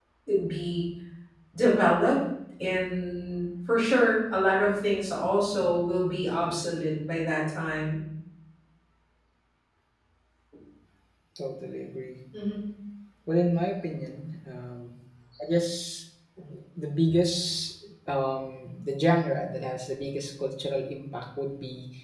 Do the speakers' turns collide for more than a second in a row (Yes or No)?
No